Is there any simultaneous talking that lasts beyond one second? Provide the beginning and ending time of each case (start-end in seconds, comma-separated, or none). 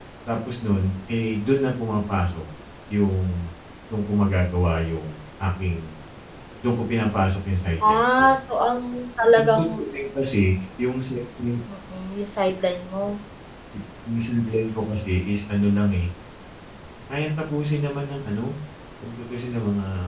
none